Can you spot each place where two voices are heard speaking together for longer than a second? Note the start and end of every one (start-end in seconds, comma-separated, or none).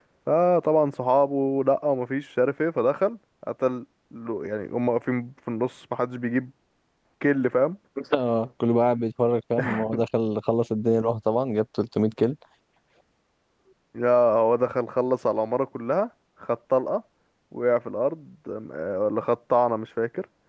none